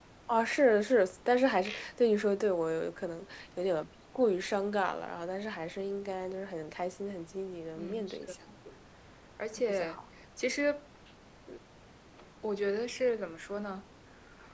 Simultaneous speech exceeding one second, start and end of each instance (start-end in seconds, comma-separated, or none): none